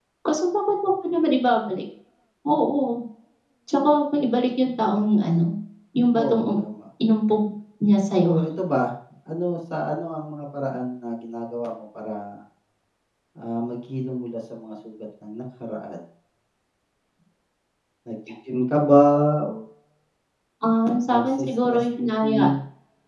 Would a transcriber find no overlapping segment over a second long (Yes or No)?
No